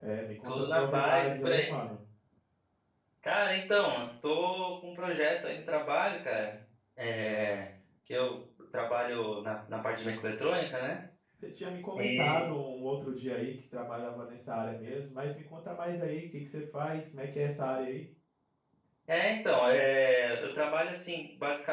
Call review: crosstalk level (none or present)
present